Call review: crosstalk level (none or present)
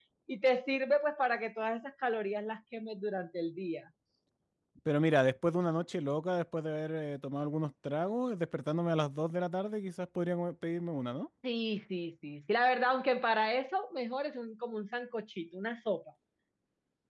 none